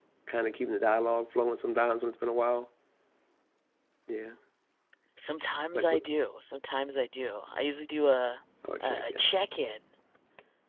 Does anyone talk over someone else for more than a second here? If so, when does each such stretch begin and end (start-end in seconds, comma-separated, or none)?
none